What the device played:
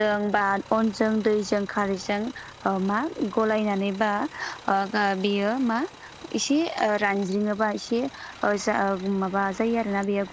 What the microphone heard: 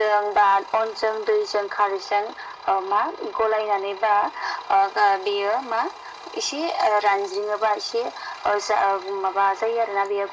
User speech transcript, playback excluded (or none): none